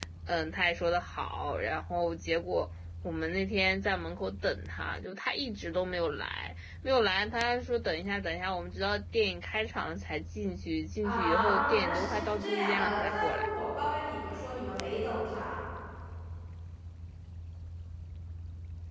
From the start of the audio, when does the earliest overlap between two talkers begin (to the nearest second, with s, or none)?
11 s